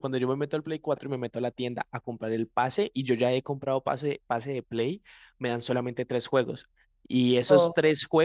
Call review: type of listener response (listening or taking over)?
listening